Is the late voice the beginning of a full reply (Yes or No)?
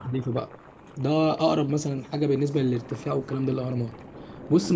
No